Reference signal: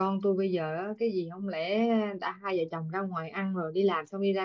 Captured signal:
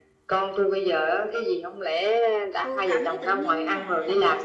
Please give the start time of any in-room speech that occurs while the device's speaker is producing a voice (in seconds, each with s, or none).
2.5 s